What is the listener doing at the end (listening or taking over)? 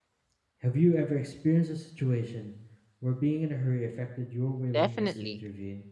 taking over